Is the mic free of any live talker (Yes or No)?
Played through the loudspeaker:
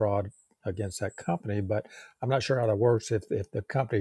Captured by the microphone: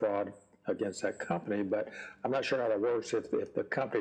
Yes